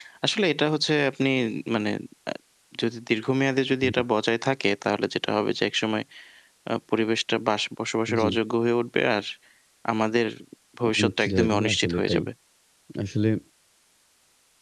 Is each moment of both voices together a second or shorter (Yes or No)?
No